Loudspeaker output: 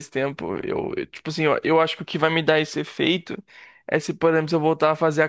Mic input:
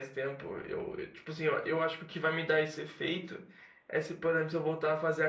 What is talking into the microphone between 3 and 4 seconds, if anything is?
echo only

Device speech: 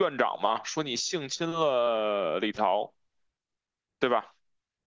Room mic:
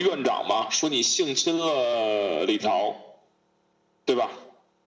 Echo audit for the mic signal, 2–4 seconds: echo only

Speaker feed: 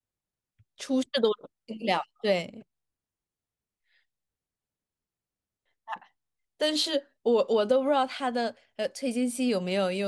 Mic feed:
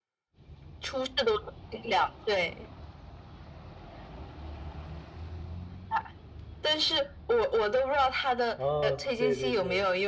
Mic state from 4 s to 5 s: neither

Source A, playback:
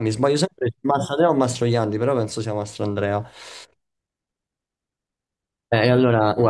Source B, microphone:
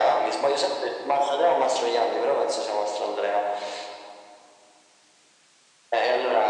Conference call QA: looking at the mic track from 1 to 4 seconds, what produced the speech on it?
echo only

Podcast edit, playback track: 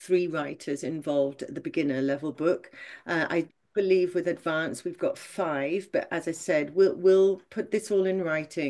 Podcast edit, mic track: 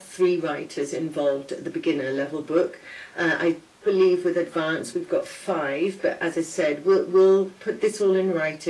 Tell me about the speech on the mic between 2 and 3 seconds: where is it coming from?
echo only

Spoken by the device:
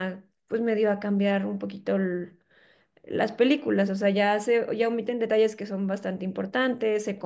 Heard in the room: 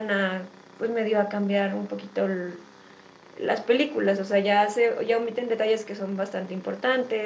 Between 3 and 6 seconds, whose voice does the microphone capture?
echo only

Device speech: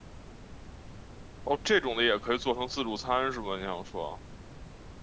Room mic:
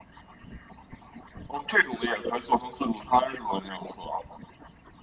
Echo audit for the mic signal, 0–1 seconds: neither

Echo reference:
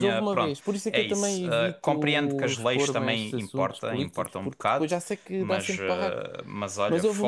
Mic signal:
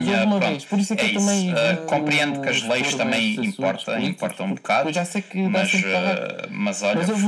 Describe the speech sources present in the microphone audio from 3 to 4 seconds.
echo only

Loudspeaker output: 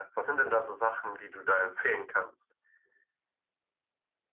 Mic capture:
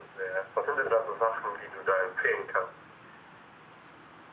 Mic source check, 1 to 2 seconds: echo only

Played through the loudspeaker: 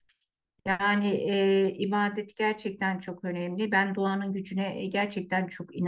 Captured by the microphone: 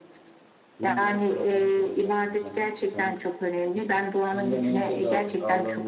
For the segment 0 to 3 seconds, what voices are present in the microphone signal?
both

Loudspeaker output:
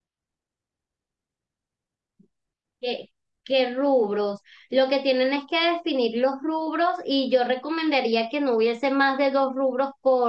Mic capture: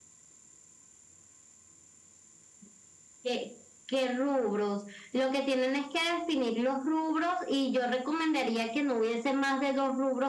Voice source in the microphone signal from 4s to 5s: echo only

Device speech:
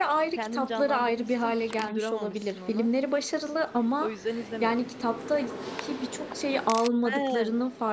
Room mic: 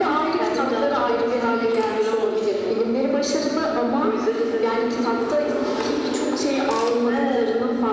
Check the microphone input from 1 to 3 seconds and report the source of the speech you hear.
echo only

